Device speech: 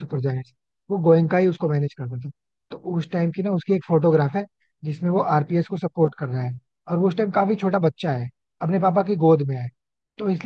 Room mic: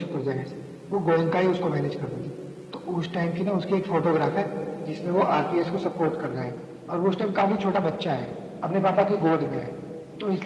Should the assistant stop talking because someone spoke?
No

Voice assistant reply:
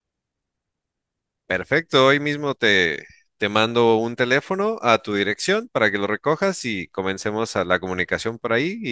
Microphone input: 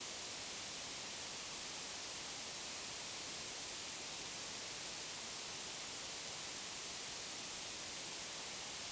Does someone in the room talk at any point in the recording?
No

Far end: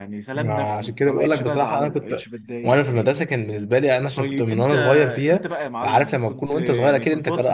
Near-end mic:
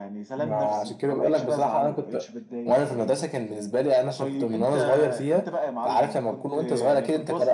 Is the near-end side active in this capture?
No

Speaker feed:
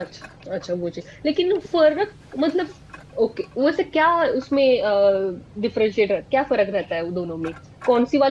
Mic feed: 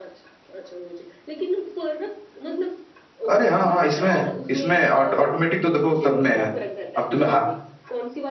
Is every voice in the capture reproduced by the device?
No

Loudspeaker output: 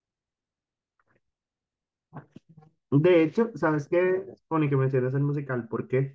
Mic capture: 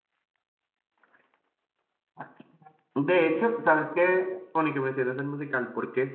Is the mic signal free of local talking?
No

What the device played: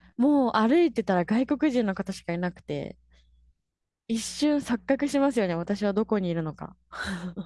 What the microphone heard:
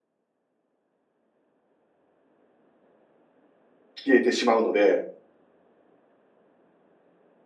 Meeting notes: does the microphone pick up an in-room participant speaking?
Yes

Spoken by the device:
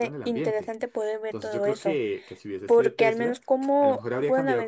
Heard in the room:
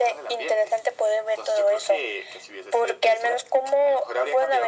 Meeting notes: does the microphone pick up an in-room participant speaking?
No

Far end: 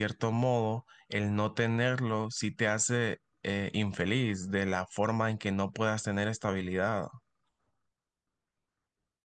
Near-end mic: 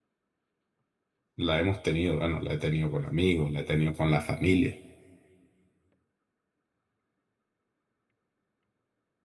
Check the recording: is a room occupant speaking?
Yes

